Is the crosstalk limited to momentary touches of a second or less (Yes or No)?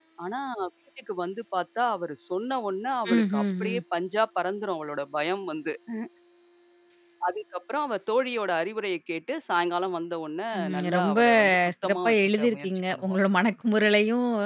No